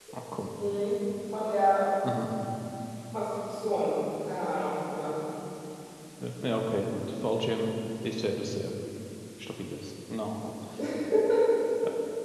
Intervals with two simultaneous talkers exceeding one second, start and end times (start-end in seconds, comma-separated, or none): none